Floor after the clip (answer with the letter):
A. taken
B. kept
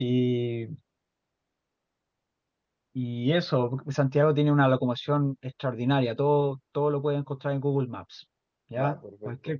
B